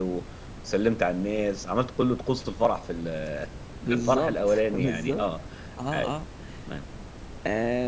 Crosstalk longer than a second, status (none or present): present